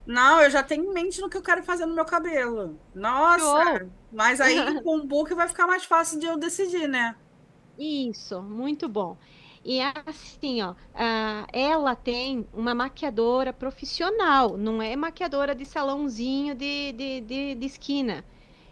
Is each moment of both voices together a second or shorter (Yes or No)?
Yes